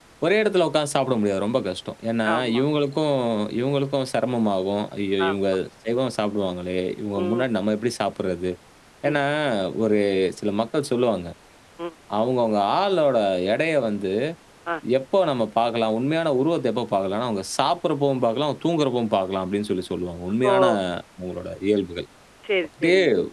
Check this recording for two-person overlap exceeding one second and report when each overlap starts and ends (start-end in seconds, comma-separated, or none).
none